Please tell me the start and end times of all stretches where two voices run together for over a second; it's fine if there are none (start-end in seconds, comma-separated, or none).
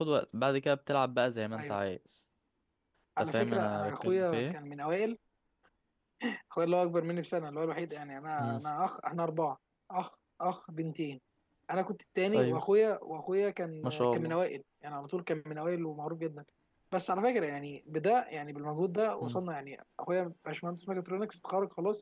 3.2-4.5